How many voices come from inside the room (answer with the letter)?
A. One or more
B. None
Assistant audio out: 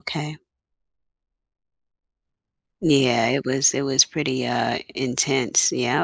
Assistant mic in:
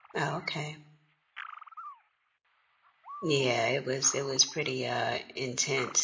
B